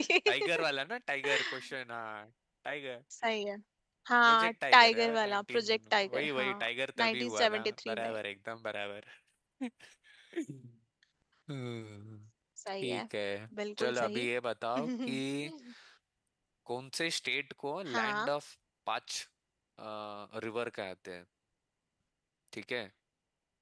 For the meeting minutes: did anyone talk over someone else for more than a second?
Yes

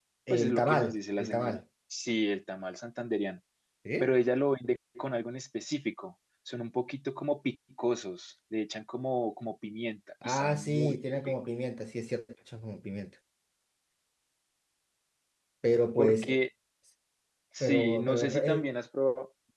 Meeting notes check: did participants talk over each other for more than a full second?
Yes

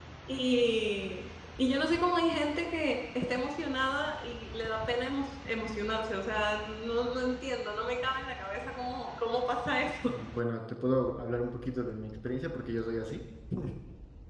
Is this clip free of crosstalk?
Yes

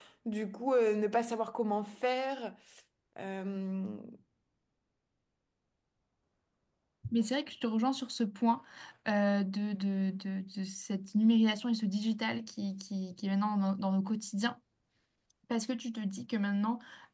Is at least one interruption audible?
No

